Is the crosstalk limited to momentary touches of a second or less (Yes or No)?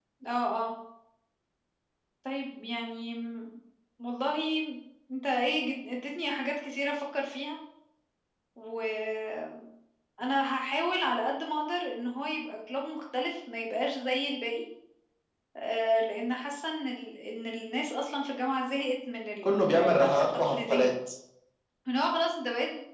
No